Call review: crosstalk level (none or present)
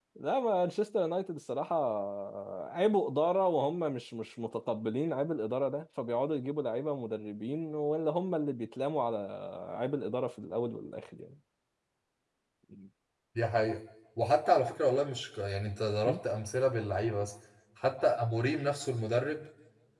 none